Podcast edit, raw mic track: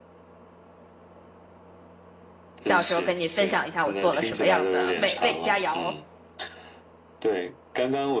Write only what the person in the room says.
到时候跟你分享一下我做了什么样的美味佳肴。

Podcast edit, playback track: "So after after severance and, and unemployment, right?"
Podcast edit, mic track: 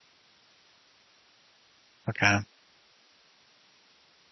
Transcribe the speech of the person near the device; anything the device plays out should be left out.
Okay.

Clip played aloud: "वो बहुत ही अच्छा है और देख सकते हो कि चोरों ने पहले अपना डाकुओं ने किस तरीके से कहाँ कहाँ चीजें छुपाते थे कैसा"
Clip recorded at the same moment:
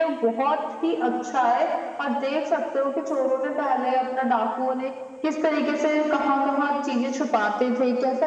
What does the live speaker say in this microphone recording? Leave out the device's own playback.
none

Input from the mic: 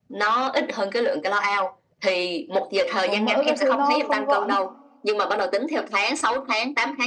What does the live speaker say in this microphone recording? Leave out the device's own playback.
kiểu có mỡ cái thứ nó không gọn ấy.

